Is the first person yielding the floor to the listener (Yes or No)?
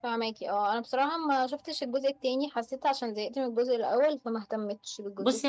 Yes